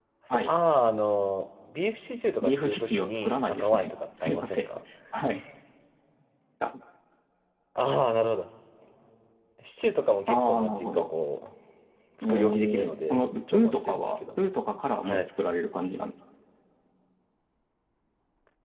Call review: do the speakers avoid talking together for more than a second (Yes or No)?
No